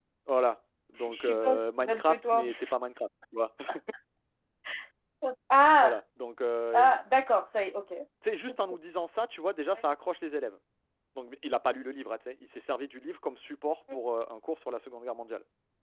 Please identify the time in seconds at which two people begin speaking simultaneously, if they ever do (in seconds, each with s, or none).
1.0 s